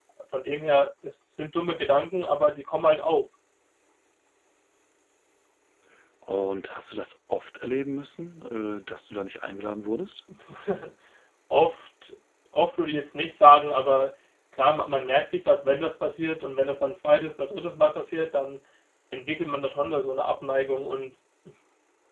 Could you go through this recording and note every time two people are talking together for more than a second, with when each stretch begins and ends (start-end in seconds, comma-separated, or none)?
none